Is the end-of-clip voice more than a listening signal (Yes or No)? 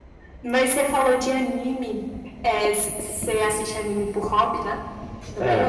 Yes